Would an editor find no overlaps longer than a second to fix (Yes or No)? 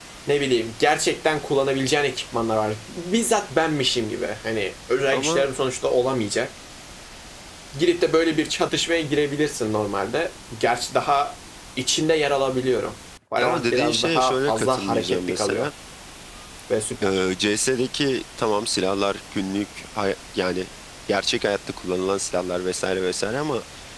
No